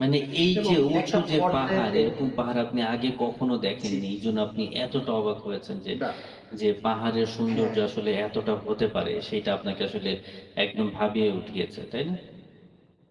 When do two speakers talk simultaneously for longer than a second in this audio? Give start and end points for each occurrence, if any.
0.6-2.1

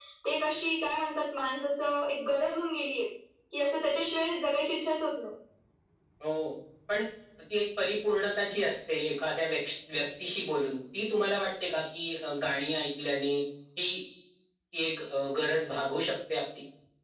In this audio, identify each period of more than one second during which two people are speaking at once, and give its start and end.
none

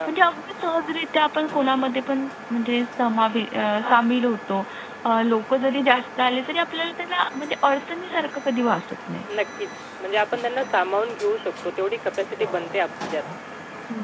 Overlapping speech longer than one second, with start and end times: none

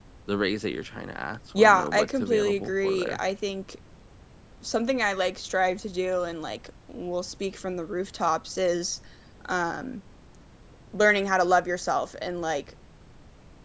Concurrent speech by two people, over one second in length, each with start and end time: 1.5-3.2

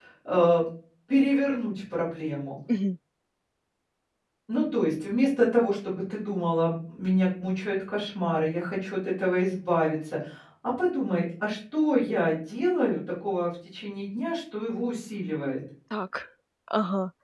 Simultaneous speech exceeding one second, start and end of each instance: none

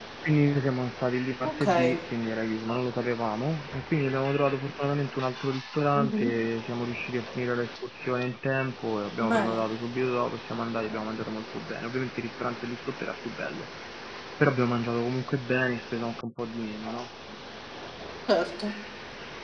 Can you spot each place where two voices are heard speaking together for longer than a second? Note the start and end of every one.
none

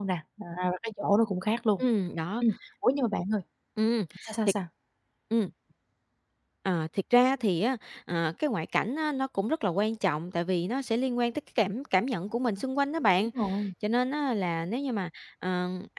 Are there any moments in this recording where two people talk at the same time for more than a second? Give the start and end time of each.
none

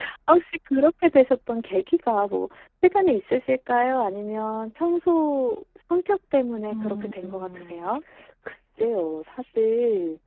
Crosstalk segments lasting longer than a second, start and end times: 6.7-7.9

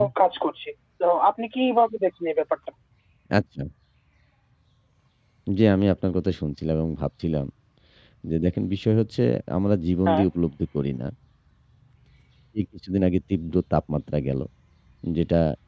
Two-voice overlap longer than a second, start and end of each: none

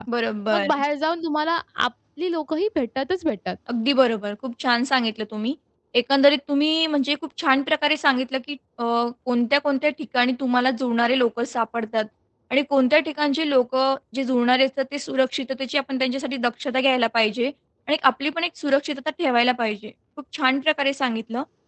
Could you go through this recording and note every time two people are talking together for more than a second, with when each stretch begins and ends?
none

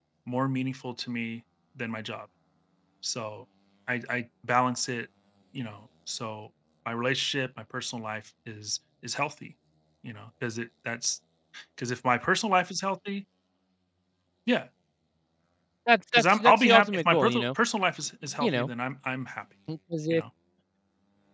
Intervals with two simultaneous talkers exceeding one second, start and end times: 16.1-17.5

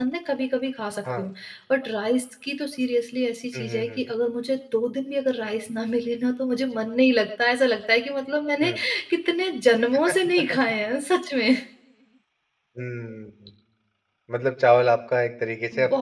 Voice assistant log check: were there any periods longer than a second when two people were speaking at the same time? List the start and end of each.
none

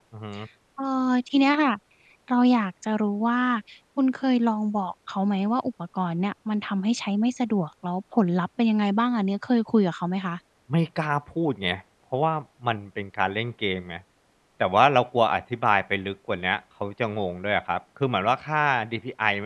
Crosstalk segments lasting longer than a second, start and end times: none

